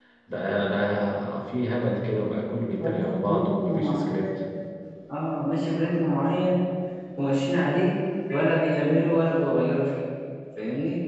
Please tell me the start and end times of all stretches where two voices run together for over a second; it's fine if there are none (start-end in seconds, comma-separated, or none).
2.8-4.2